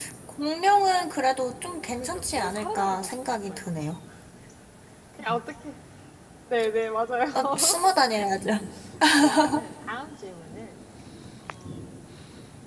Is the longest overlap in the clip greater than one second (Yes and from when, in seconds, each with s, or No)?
Yes, from 1.7 s